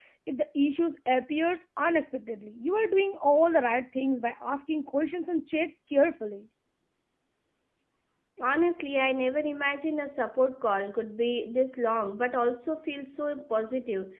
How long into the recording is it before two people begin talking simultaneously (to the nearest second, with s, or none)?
none